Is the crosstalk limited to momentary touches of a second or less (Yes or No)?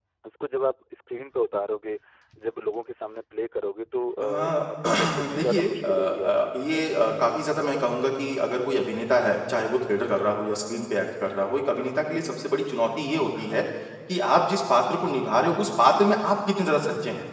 No